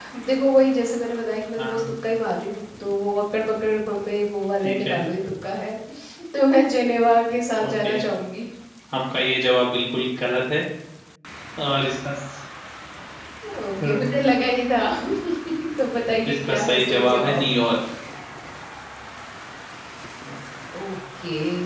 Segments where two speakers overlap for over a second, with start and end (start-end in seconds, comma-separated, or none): 16.3-17.5